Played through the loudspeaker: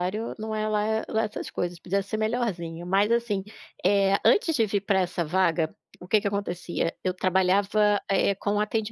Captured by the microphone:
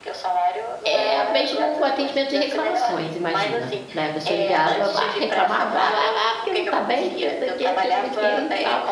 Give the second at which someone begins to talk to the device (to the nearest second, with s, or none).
1 s